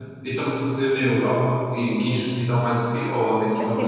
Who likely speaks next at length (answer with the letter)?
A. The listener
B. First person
A